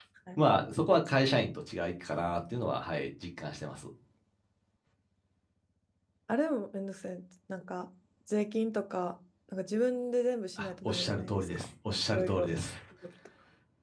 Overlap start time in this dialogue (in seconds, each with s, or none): 10.6 s